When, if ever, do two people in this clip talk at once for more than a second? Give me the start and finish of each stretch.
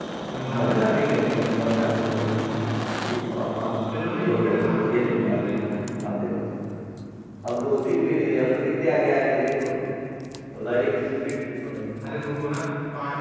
0.6-2.2, 4.2-5.8

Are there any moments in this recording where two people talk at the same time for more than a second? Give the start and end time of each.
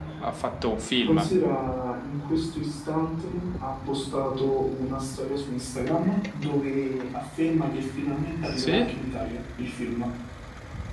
none

